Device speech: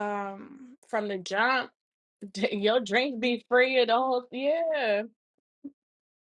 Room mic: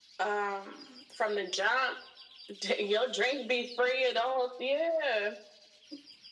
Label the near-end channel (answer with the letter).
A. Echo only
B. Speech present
A